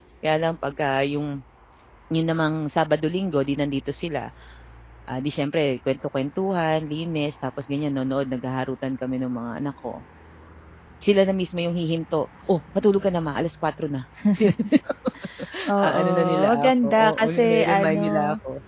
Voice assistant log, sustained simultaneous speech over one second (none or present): present